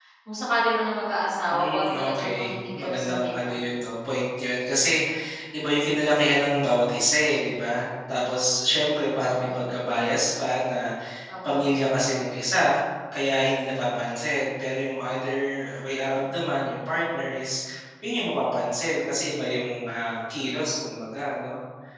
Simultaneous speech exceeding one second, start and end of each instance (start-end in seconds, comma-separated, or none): 1.5-3.5